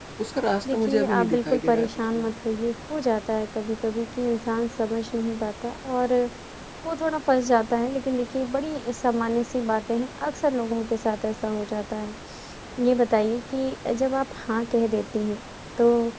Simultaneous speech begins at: 1 s

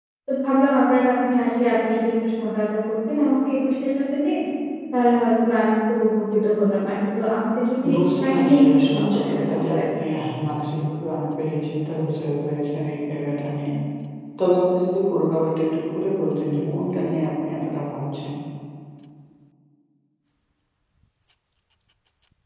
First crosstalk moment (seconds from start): 8 s

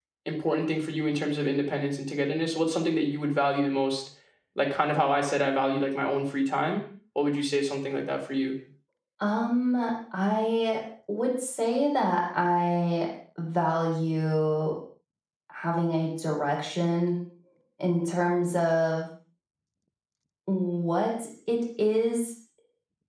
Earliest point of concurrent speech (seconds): none

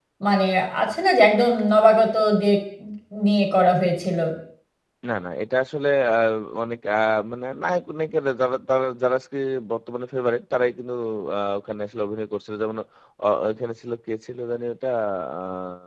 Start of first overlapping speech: none

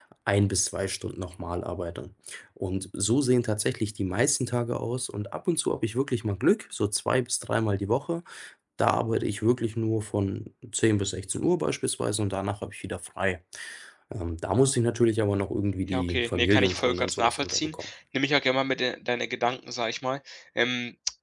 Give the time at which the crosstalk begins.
16 s

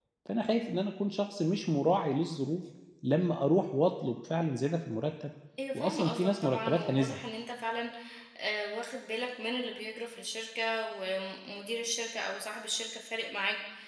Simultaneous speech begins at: 6 s

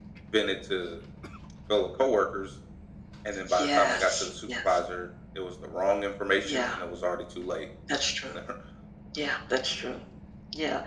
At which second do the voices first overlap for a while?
4 s

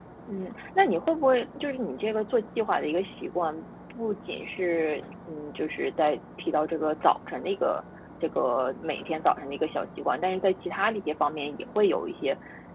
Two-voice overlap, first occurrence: none

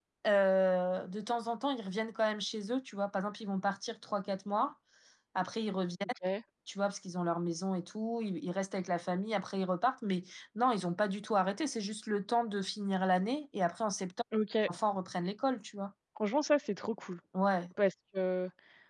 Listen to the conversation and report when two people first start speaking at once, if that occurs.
none

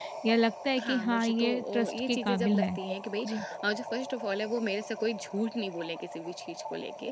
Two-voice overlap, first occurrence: 1 s

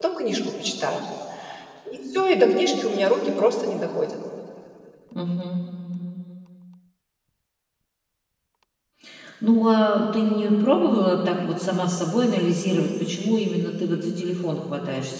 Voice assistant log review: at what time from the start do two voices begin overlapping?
none

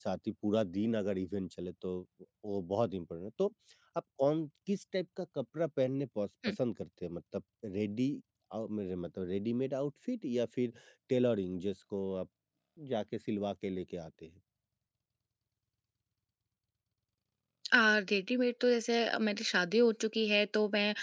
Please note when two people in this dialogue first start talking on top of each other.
none

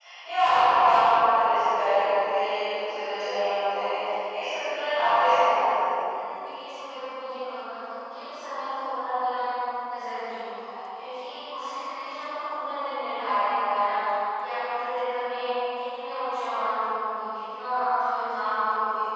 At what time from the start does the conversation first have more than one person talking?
none

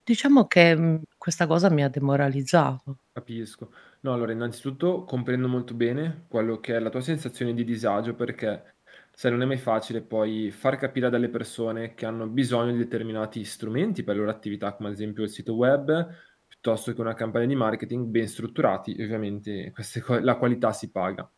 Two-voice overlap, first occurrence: none

